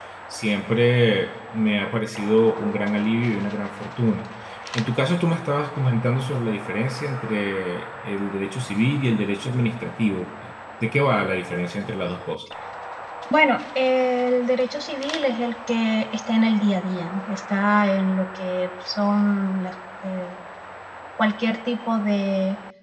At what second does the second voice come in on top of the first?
none

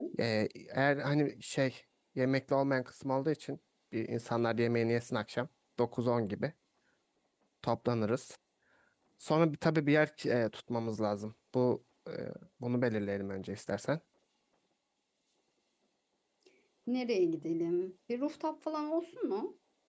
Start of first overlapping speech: none

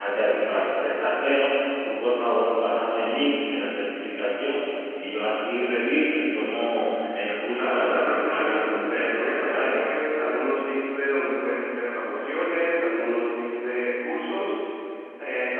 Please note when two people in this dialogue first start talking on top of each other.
7.5 s

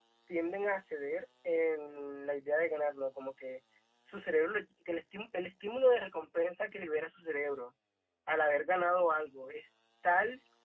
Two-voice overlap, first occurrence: none

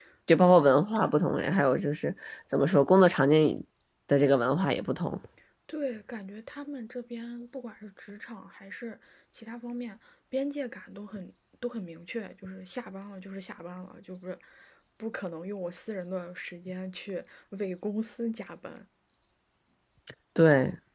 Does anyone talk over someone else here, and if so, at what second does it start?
none

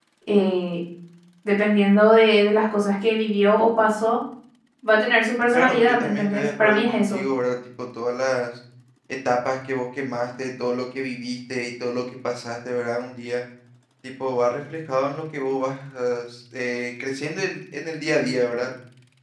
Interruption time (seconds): 5.5 s

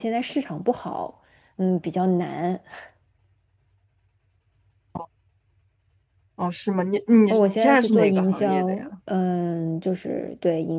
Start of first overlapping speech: 7.6 s

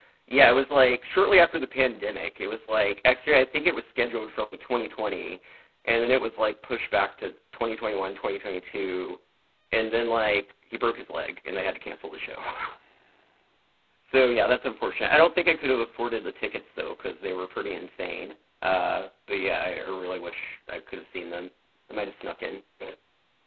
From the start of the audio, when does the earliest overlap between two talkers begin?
none

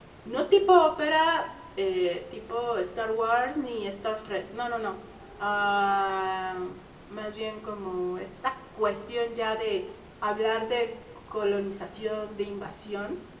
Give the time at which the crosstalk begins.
none

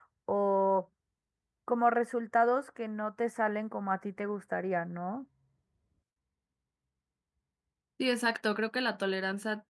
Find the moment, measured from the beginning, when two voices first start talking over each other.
none

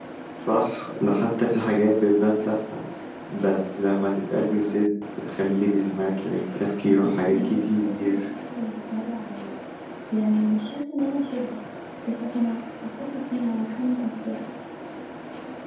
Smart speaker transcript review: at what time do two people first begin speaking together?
6.8 s

